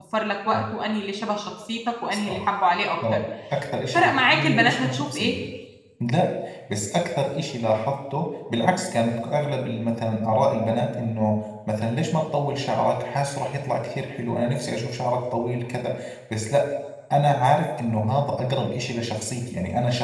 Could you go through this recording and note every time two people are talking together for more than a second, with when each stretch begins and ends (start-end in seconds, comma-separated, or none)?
3.9-5.3